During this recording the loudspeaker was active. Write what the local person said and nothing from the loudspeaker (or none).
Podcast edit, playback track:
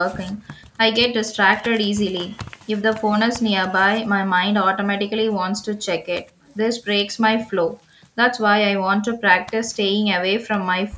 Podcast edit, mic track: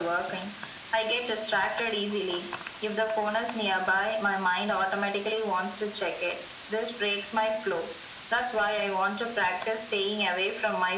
none